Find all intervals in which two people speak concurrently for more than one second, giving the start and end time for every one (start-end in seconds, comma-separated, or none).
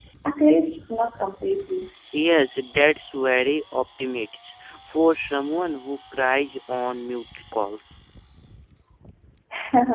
none